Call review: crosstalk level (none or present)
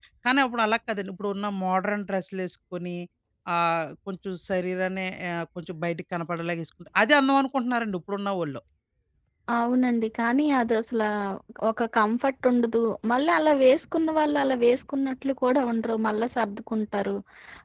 none